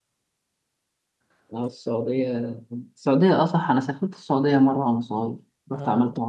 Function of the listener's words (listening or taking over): taking over